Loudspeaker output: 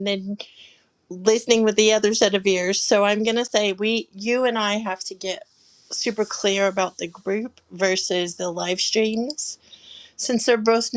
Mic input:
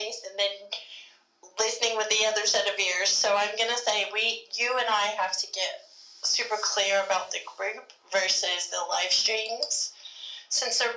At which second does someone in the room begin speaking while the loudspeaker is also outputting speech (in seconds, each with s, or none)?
none